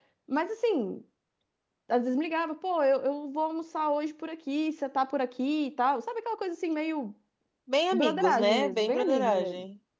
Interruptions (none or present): present